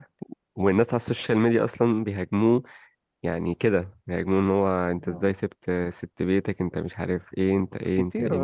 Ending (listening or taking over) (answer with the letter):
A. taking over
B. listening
A